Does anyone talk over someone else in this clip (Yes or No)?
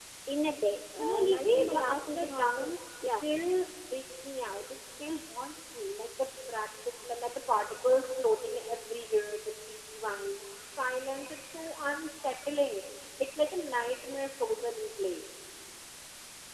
Yes